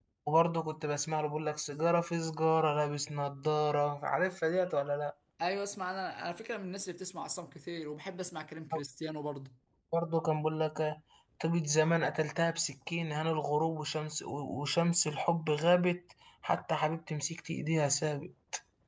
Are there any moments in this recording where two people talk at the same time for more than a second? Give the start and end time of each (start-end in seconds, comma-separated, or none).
none